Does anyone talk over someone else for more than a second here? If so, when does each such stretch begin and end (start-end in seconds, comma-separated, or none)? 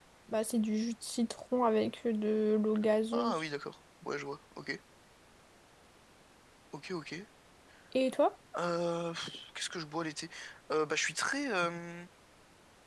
none